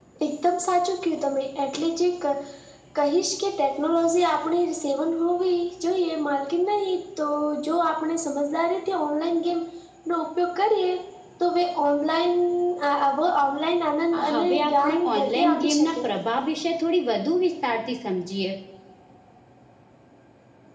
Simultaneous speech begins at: 14 s

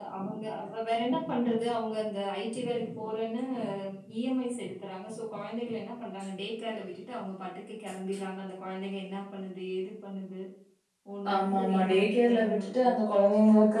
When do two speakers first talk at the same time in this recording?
11 s

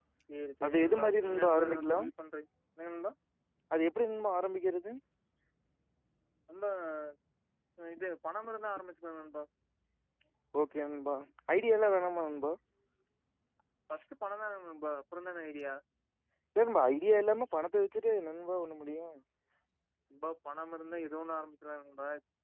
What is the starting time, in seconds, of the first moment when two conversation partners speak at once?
1 s

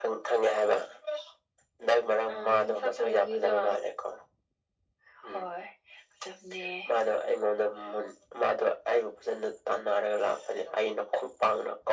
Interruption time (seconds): 2 s

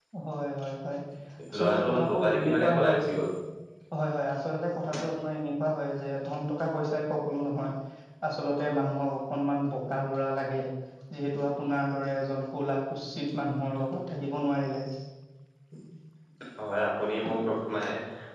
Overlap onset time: 2 s

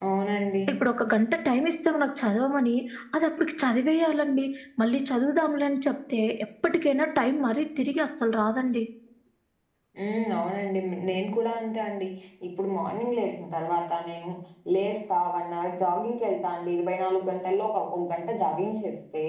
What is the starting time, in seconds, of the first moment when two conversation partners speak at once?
none

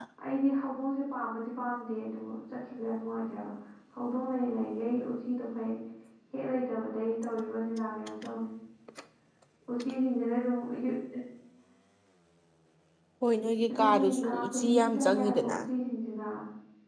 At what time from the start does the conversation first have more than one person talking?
14 s

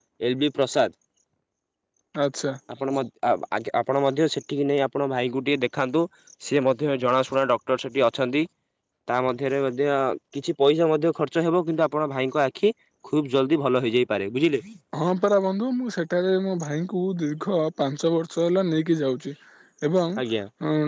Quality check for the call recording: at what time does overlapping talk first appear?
none

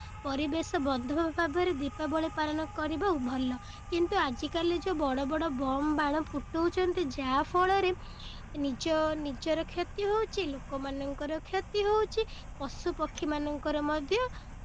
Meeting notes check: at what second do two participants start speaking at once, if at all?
none

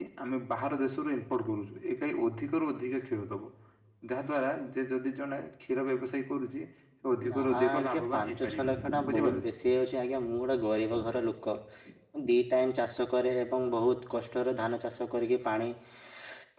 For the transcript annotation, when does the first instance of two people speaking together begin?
7 s

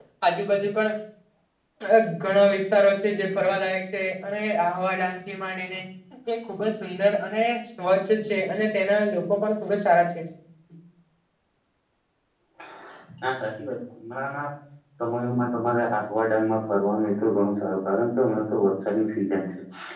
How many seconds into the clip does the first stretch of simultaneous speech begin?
none

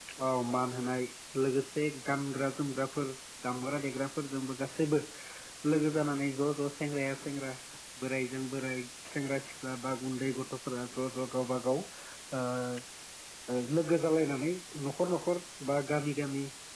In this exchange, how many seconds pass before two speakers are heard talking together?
none

